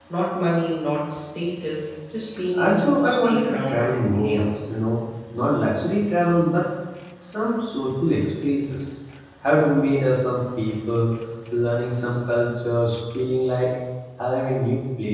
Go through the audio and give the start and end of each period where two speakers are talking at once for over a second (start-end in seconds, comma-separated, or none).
2.5-4.4